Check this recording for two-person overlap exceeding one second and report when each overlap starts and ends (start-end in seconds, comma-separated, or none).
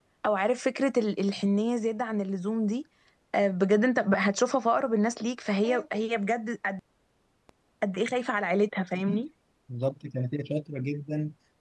none